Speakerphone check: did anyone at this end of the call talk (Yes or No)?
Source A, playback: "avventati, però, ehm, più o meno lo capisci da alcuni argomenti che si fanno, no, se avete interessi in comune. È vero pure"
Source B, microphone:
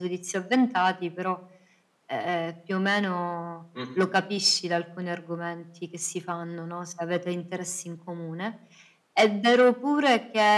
Yes